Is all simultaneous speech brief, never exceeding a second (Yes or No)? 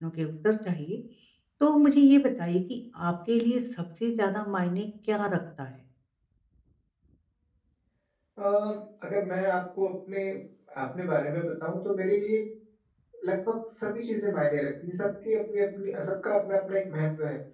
Yes